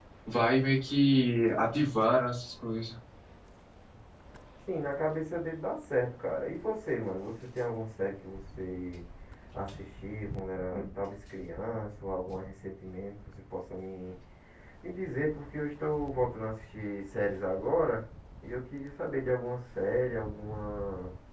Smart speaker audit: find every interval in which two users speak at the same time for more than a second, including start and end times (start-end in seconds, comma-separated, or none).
none